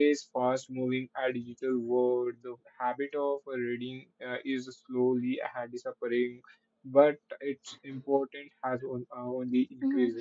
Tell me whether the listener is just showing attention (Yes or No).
No